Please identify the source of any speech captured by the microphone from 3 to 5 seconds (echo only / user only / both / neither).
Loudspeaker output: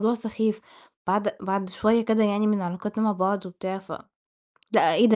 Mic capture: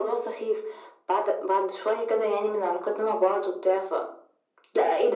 echo only